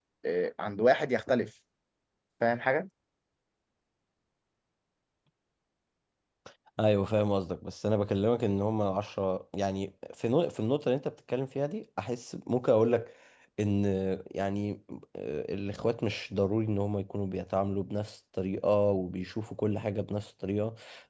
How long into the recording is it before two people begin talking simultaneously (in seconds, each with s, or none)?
none